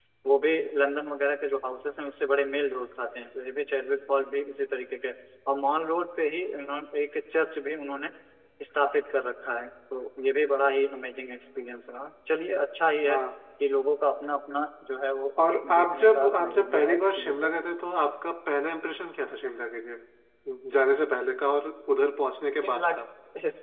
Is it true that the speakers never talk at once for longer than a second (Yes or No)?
No